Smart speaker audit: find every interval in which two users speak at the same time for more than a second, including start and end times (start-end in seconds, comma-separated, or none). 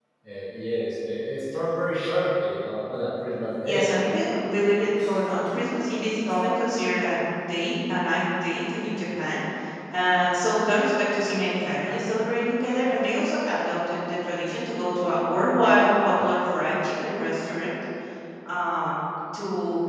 none